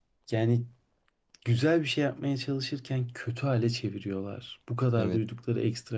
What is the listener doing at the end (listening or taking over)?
listening